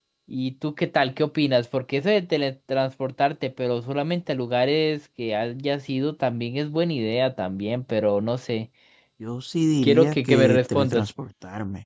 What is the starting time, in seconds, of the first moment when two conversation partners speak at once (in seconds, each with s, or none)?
9.8 s